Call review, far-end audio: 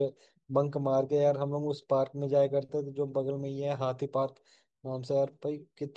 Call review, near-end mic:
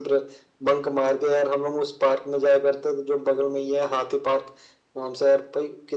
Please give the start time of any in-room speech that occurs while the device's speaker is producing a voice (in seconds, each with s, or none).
none